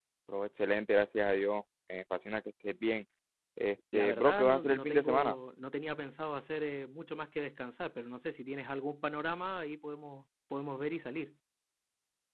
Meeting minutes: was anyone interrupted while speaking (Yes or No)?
Yes